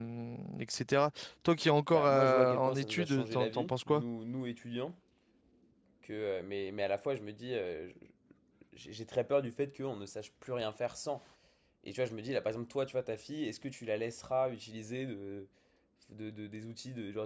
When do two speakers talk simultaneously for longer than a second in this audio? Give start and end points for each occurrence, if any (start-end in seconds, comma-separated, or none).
1.9-4.0